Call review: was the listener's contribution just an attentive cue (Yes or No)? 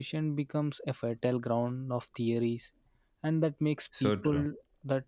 Yes